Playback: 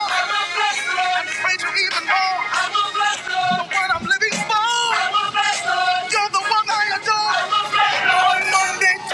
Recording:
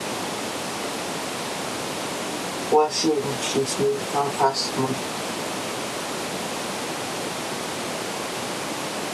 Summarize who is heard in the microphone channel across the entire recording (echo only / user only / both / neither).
user only